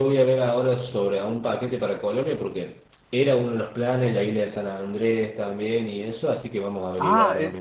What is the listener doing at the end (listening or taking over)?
taking over